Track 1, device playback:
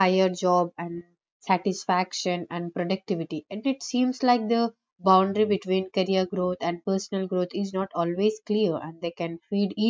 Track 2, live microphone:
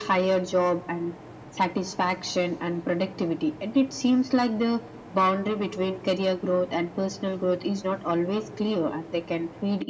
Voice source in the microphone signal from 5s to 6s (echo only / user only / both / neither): echo only